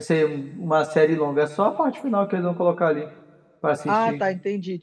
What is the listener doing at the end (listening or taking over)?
taking over